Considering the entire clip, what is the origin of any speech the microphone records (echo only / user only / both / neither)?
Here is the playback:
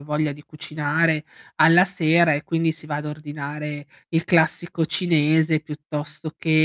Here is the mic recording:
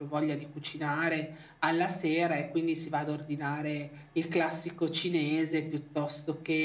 echo only